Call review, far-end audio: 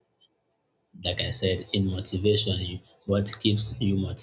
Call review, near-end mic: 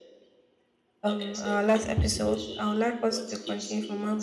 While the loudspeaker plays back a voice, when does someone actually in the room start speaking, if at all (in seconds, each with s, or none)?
1.0 s